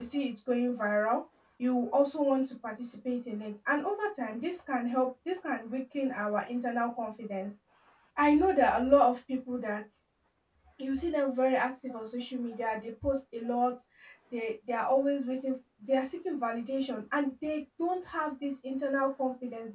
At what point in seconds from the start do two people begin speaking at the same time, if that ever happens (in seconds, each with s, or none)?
none